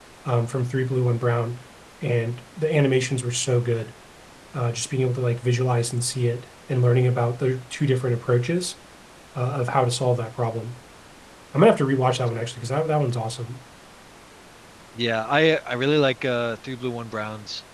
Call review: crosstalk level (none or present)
none